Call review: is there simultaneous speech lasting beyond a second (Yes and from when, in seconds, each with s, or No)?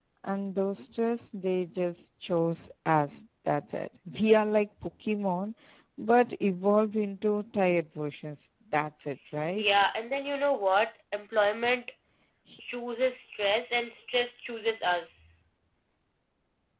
No